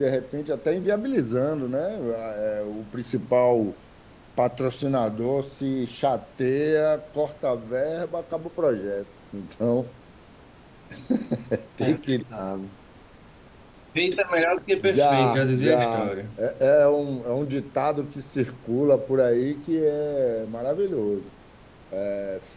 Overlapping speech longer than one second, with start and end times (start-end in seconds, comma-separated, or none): 14.8-16.1